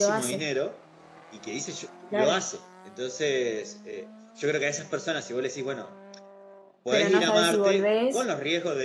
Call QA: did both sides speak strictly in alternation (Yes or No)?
No